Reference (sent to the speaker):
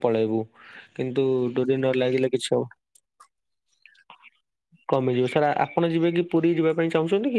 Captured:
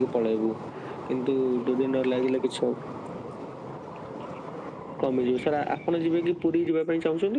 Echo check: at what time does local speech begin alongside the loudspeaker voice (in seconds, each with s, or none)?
none